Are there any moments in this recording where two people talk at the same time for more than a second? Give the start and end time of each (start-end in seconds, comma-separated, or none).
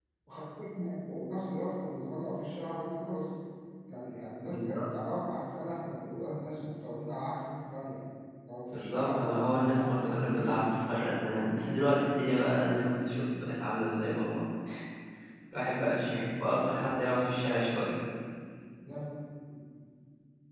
8.7-10.6